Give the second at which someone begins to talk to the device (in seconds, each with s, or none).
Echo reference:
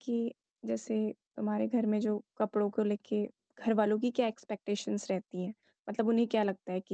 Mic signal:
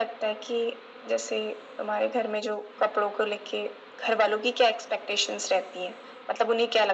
none